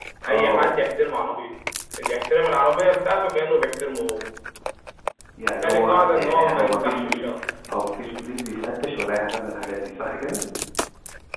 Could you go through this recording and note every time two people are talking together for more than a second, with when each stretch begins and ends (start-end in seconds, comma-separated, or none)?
5.6-7.3